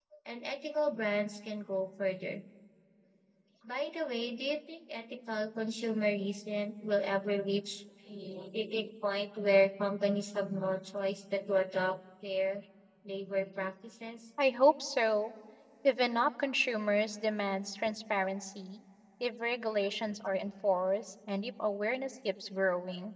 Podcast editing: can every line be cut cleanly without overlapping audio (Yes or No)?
Yes